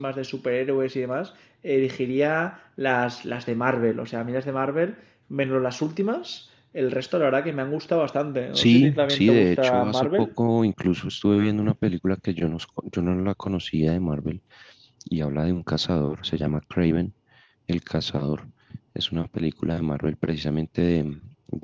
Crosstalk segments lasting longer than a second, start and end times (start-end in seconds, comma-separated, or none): 8.6-10.3